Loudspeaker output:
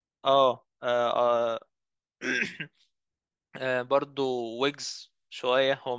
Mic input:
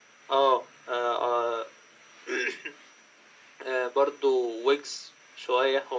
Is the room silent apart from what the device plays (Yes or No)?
Yes